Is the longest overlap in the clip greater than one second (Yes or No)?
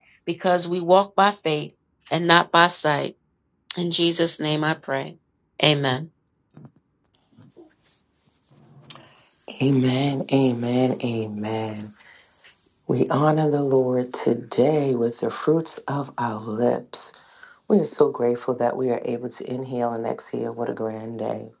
No